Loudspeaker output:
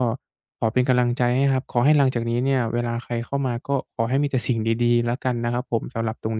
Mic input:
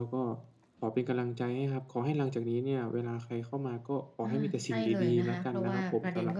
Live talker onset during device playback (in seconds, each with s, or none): 4.2 s